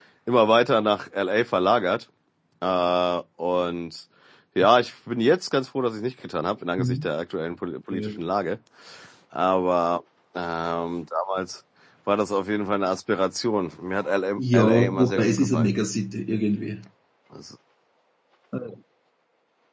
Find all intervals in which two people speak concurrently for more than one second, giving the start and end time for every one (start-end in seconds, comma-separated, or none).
14.4-15.8